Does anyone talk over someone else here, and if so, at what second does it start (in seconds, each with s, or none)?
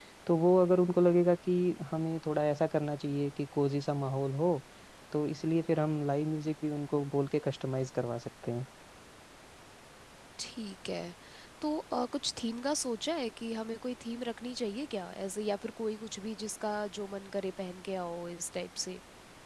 none